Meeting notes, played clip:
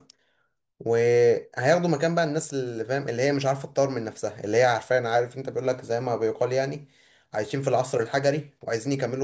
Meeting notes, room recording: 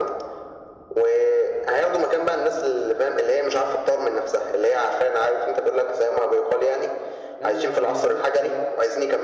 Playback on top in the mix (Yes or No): Yes